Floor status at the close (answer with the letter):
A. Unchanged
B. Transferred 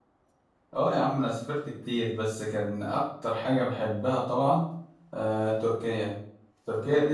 A